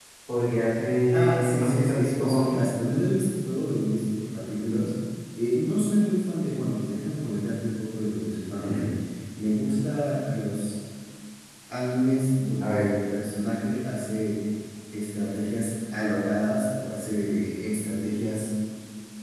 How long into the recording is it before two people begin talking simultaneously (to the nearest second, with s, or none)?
1 s